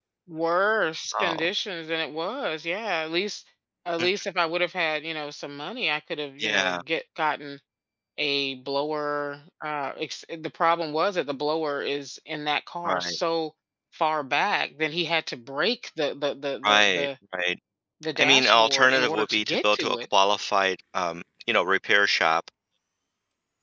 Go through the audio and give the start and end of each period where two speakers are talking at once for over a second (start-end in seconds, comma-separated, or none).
18.2-20.0